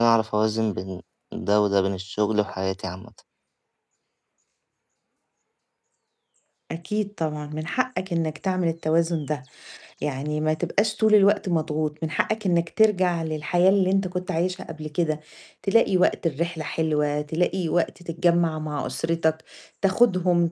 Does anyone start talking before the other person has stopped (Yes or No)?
No